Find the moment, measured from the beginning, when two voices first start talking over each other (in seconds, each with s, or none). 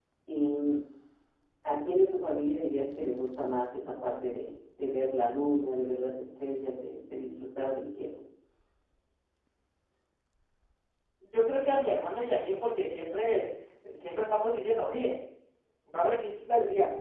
none